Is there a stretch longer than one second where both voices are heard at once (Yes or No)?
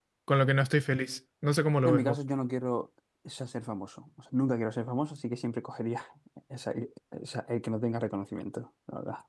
No